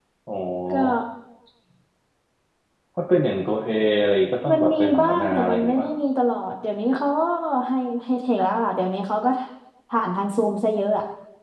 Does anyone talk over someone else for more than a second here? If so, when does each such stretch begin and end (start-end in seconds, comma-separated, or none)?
4.5-5.9